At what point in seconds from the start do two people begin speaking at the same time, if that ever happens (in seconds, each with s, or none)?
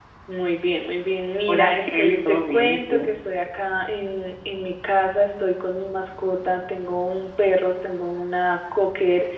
1.5 s